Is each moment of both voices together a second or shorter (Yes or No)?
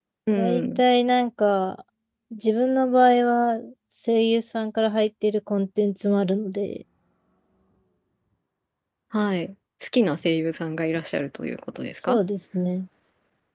Yes